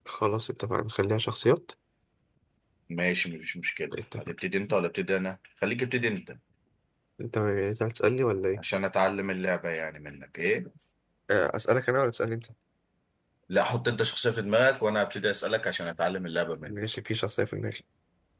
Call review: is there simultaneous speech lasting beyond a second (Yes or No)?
No